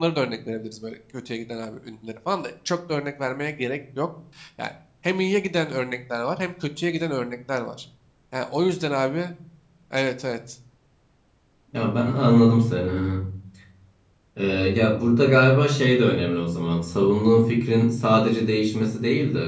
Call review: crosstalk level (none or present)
none